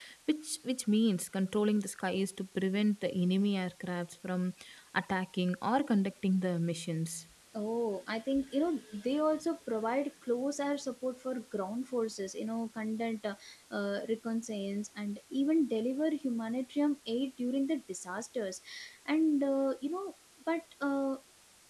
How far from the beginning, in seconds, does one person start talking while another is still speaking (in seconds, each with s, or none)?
none